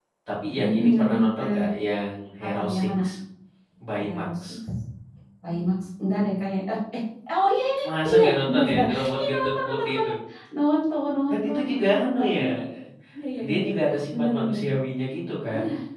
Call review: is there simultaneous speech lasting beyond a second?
Yes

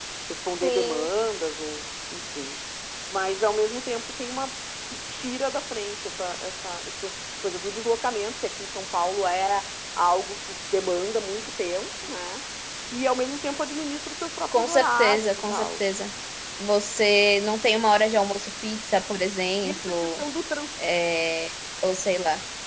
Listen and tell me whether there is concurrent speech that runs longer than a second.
Yes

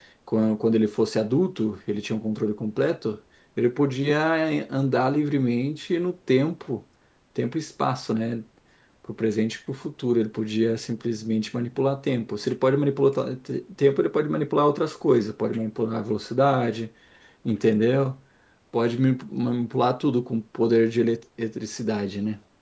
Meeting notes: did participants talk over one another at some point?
No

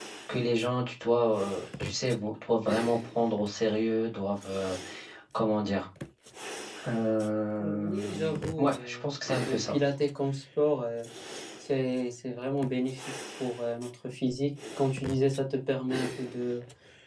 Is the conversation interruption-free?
No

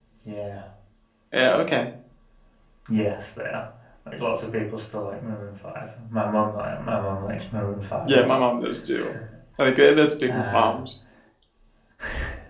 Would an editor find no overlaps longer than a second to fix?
Yes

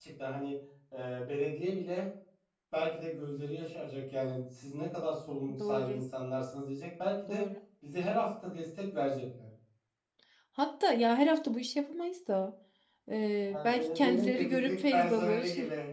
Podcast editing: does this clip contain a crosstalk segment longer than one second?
Yes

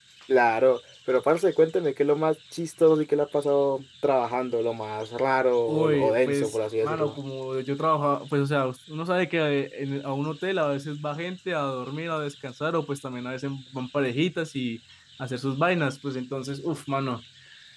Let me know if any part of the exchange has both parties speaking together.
Yes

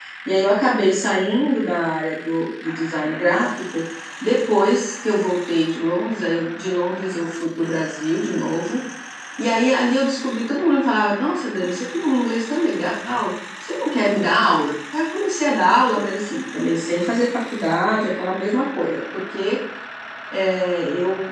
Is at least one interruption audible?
No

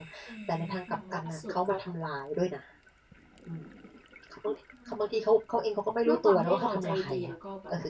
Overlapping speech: Yes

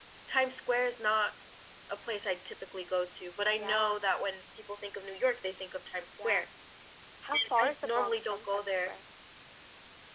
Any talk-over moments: Yes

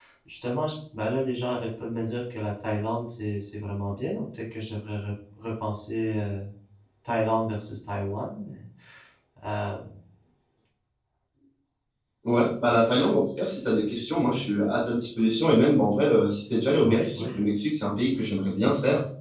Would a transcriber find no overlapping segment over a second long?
Yes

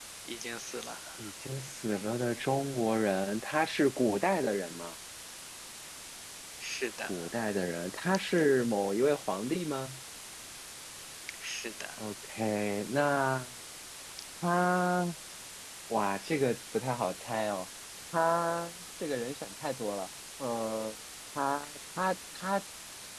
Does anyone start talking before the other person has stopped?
No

